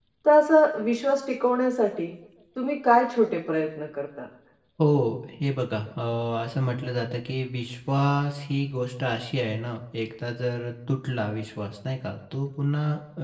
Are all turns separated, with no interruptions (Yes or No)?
Yes